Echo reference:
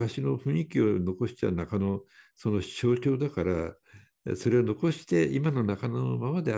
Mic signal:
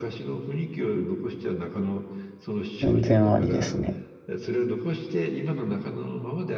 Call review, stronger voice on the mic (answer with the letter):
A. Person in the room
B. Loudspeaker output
A